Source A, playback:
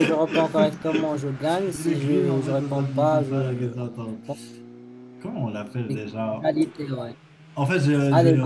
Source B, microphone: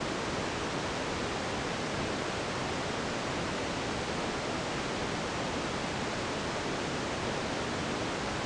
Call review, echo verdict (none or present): none